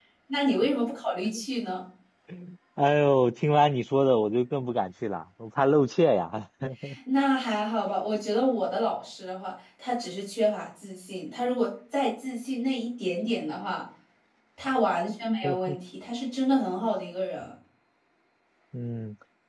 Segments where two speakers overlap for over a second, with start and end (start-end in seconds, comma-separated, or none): none